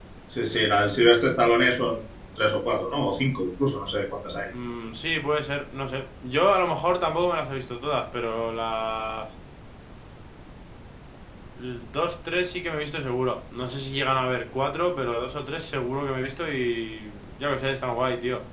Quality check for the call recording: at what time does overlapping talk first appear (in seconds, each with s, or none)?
none